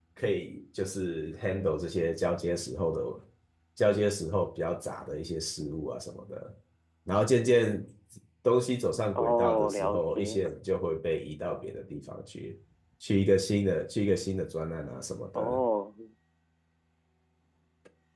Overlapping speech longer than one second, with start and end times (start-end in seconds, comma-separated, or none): 9.2-10.4